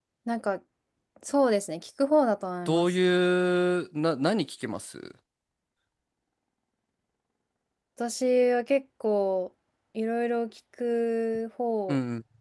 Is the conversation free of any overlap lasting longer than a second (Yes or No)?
Yes